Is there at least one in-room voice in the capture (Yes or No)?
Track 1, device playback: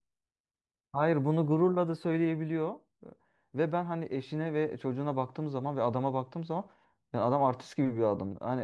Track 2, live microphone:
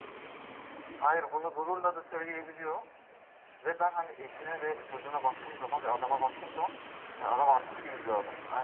No